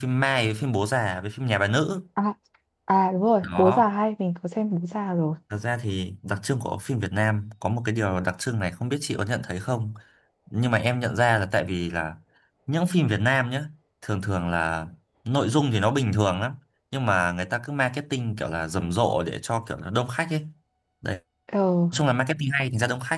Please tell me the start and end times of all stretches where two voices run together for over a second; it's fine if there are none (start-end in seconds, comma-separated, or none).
none